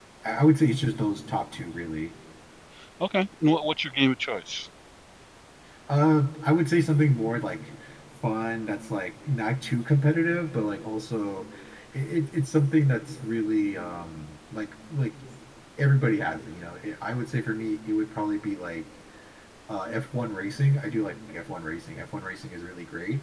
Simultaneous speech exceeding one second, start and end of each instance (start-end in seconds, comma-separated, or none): none